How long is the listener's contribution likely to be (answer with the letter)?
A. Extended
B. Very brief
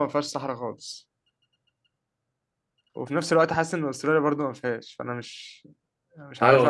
A